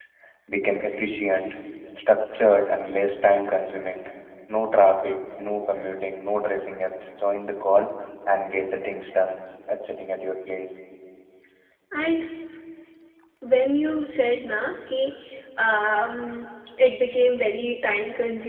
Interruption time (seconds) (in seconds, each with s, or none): none